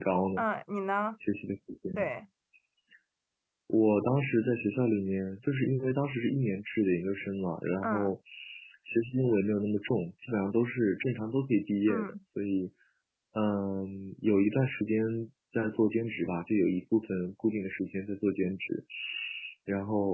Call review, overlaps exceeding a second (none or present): none